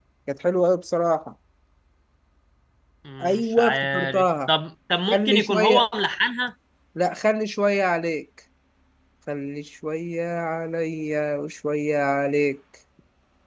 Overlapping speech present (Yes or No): Yes